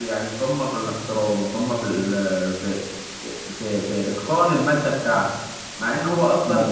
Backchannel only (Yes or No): Yes